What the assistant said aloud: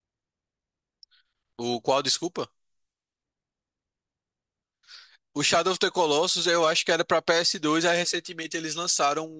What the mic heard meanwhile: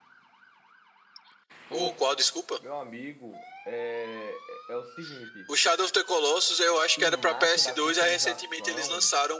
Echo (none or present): present